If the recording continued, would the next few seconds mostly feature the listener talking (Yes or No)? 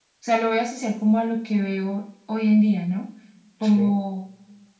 No